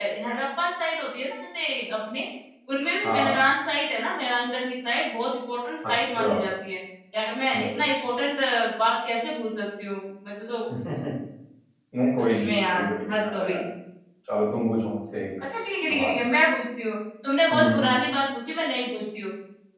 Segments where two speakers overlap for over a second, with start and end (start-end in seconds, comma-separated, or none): 12.2-13.6